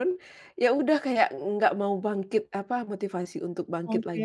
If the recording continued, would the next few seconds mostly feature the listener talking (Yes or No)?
No